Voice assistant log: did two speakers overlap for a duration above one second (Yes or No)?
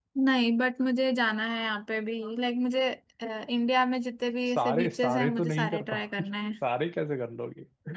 Yes